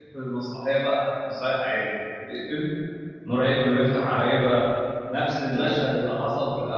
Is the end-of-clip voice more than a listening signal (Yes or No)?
No